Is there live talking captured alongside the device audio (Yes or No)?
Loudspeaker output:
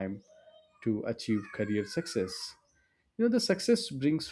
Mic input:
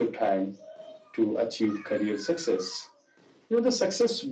No